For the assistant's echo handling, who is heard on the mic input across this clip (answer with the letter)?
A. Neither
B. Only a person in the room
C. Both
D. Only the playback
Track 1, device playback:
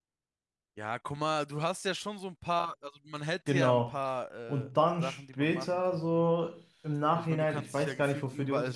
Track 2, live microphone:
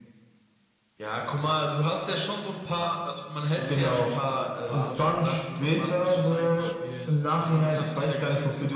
C